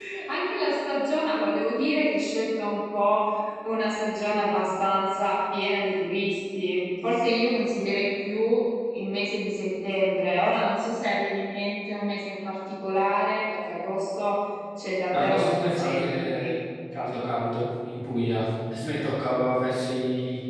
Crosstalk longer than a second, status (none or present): present